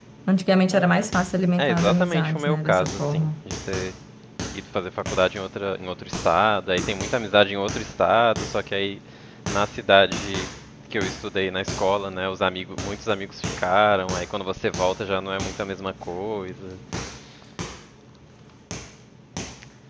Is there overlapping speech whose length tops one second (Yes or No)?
Yes